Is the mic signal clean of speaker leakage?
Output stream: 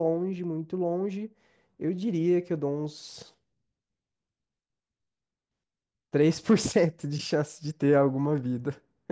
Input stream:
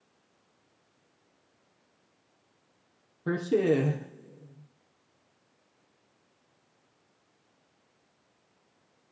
Yes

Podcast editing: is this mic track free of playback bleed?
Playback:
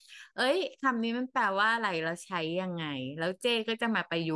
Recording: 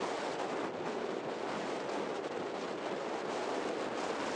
Yes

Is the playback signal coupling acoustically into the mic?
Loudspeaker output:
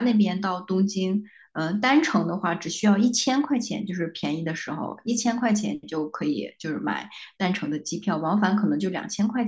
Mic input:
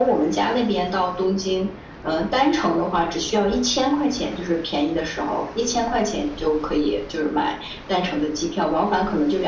Yes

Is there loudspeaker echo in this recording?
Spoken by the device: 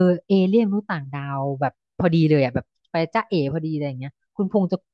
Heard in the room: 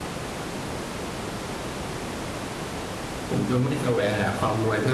No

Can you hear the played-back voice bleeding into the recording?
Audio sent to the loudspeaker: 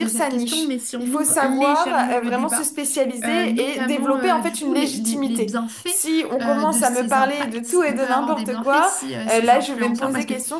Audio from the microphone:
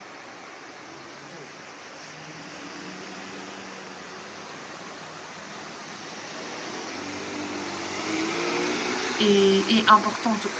No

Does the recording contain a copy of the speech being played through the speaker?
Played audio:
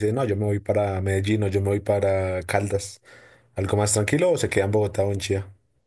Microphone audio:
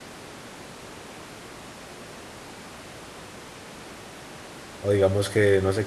No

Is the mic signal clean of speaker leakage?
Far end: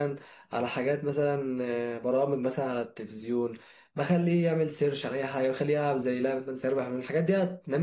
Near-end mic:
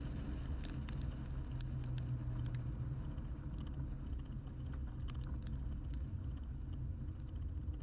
Yes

